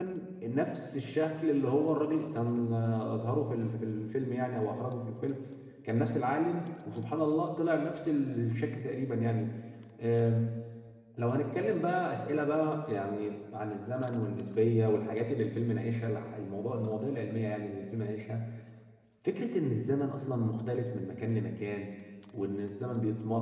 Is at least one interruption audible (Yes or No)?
No